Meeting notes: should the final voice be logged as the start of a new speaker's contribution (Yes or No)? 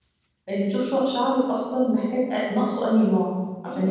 Yes